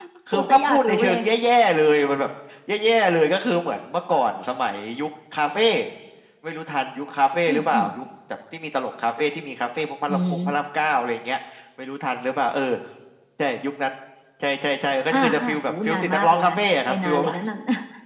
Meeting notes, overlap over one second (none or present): present